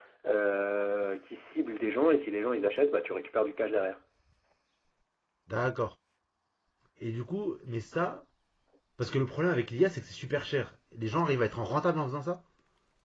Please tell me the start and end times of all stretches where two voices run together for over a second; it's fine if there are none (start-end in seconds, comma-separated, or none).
none